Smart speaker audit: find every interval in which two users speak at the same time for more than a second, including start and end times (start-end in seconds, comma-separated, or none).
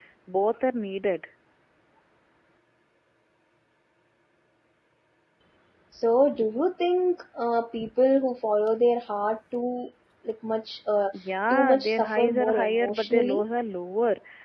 11.5-13.4